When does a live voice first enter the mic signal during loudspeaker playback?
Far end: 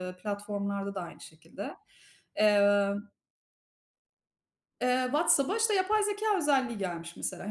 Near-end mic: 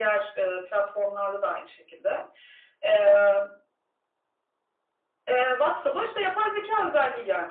none

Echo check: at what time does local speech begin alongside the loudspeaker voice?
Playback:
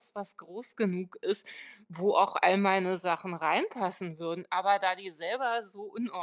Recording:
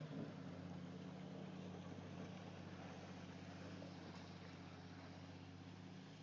none

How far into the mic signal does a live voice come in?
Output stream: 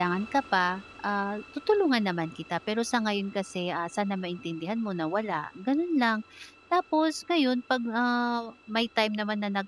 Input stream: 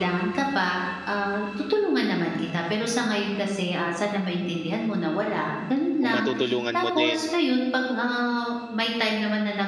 6.0 s

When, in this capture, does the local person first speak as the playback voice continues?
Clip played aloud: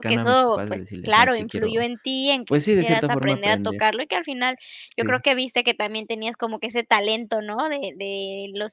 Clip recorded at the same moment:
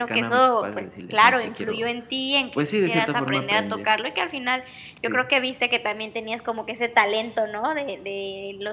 none

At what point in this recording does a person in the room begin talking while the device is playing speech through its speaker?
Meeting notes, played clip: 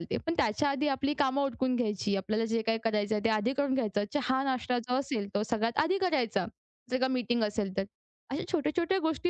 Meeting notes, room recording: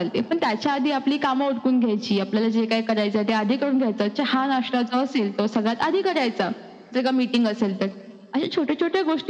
none

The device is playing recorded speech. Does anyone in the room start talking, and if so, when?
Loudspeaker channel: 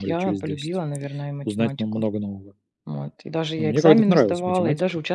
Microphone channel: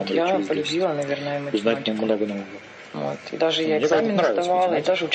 none

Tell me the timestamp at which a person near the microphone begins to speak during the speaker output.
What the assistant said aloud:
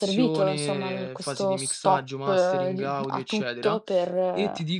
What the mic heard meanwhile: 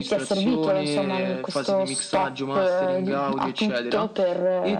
none

